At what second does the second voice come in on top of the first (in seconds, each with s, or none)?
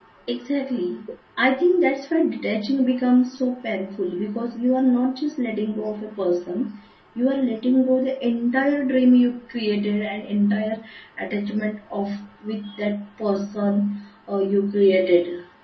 none